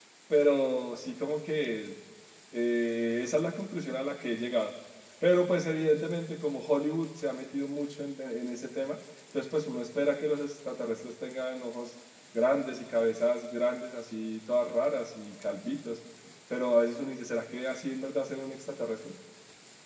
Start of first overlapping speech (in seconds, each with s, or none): none